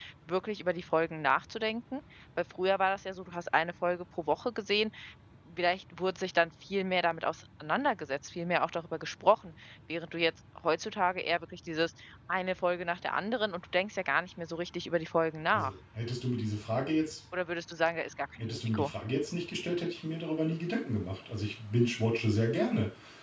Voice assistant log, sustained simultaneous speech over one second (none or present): none